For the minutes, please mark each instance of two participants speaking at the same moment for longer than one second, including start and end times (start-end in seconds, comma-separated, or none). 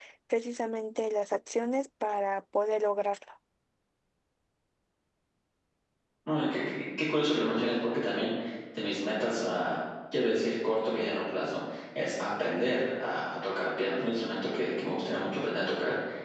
none